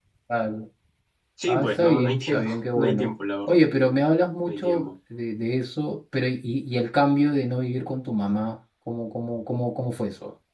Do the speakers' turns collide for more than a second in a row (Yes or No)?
Yes